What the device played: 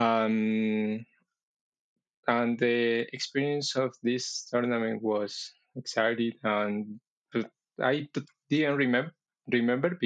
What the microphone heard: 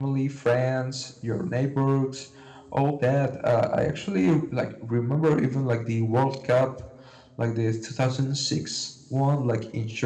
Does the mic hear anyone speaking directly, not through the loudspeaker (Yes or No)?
Yes